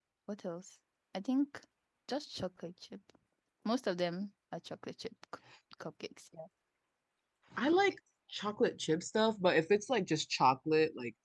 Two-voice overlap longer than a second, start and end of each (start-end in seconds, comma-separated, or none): none